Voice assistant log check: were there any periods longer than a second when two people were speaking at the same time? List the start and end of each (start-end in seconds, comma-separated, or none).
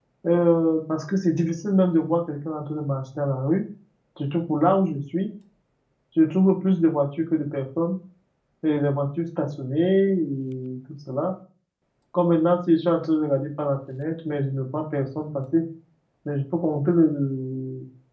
none